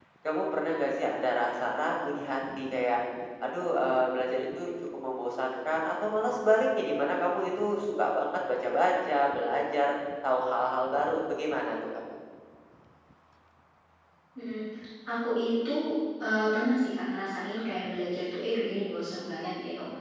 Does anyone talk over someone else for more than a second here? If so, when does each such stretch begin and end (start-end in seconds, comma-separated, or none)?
none